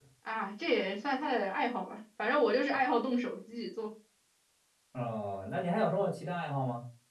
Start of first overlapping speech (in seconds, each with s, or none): none